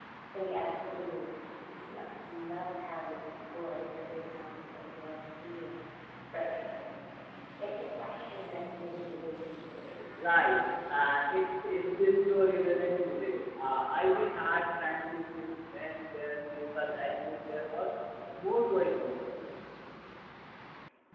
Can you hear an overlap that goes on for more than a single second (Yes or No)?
No